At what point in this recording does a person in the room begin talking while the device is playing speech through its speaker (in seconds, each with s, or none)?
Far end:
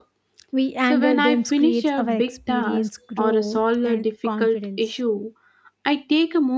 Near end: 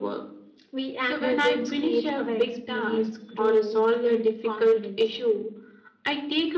none